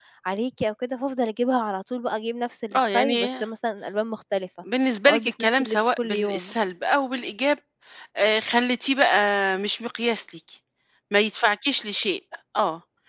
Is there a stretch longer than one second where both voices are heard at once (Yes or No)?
Yes